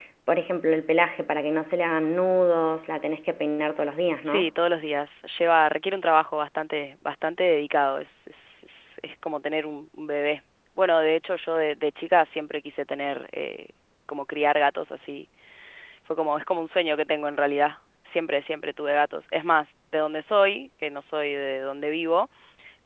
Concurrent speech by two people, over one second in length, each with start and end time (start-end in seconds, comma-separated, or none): none